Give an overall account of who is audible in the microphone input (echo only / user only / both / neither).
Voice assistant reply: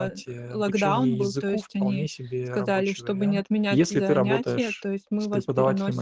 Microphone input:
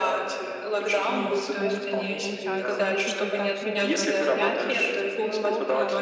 both